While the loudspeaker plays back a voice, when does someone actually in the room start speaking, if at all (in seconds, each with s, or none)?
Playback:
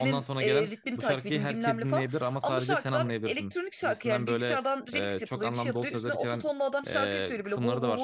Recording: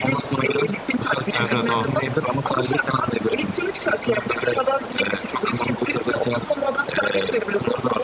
1.3 s